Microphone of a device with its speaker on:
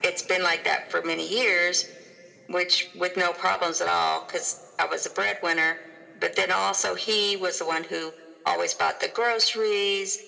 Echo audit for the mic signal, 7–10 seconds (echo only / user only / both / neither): echo only